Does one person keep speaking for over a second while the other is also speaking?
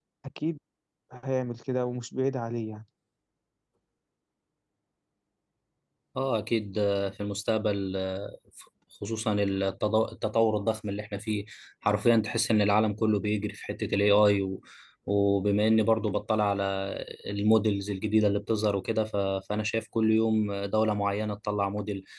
No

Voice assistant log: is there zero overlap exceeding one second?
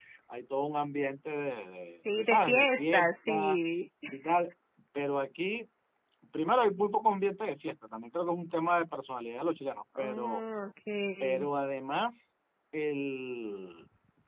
No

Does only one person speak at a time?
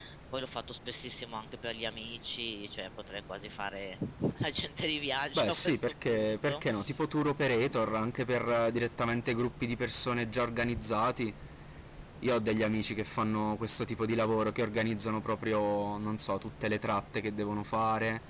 No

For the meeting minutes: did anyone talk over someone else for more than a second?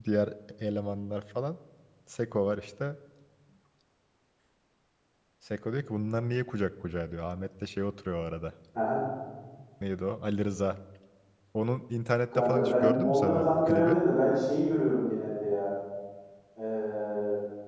Yes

